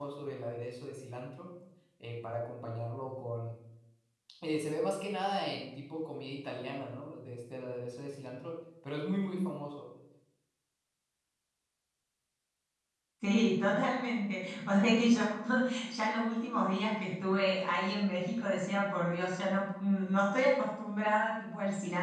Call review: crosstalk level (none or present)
none